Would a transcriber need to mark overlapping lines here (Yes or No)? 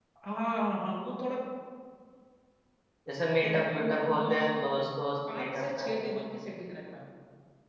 Yes